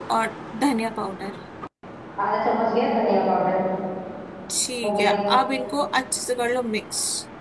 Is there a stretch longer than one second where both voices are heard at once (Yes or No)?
No